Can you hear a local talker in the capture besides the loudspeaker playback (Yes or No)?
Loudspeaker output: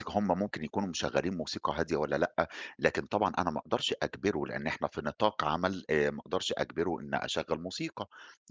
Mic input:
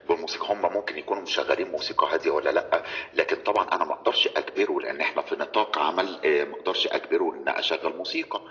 No